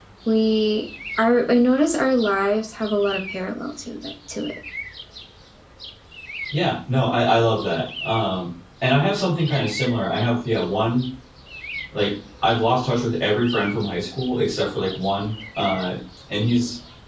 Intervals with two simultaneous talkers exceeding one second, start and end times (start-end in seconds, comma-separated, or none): none